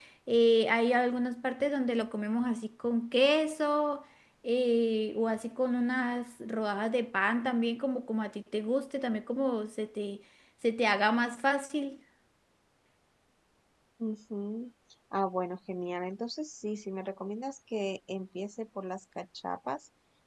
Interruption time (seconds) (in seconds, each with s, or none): none